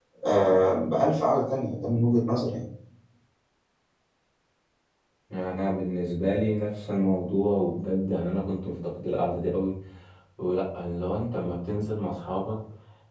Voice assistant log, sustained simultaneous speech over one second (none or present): none